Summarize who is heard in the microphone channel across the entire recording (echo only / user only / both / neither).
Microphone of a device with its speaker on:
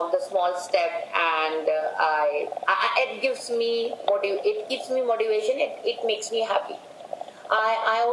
echo only